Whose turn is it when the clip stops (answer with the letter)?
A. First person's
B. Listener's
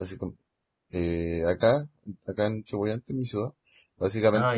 A